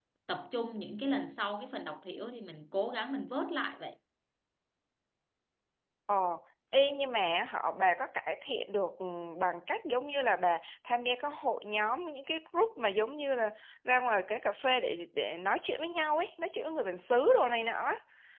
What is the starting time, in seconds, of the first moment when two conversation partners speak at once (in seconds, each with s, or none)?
none